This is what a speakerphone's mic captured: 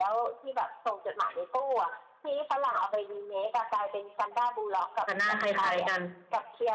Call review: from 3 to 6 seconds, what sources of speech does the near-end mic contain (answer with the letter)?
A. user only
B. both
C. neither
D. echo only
B